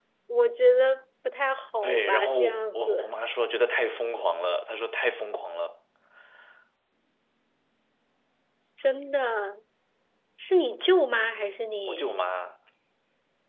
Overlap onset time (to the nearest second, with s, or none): 2 s